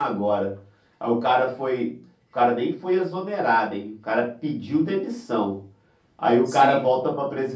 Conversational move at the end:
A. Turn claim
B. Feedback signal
B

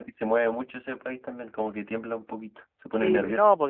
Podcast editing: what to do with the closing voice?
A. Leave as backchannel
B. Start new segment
B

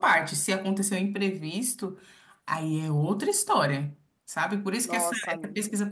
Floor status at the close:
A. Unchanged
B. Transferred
A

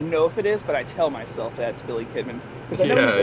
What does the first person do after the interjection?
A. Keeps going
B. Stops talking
B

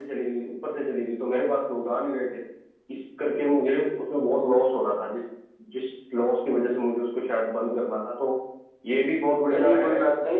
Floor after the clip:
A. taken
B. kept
A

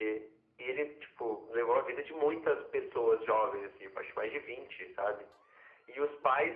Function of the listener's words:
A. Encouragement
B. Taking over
A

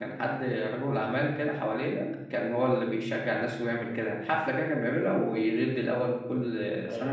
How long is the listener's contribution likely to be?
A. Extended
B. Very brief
A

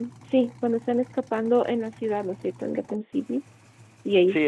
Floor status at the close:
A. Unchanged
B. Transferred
B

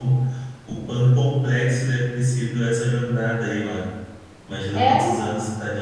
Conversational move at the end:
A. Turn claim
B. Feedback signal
B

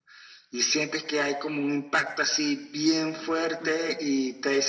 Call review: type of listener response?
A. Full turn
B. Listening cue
B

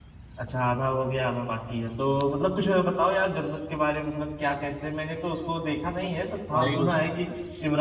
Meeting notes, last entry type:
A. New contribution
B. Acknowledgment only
B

